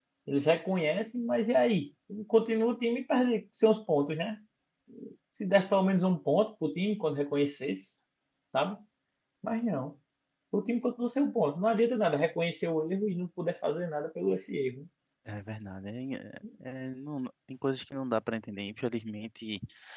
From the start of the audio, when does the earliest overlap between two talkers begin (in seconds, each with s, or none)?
none